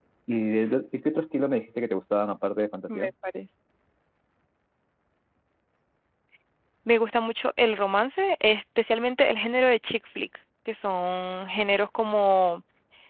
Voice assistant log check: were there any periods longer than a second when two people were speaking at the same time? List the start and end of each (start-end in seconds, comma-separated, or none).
none